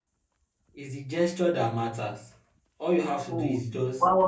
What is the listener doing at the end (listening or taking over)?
taking over